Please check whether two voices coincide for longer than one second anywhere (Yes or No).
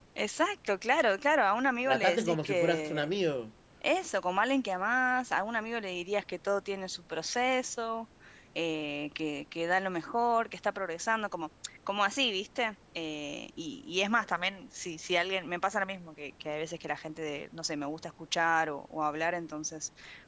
Yes